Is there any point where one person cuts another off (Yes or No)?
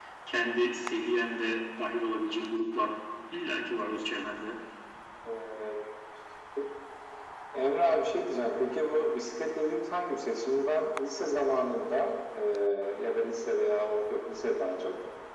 No